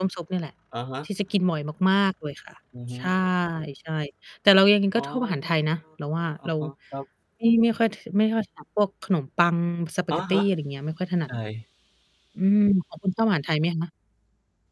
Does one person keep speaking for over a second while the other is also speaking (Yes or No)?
No